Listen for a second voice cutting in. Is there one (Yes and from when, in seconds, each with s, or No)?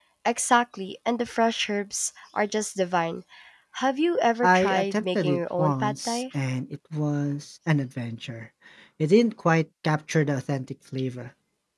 Yes, from 4.4 s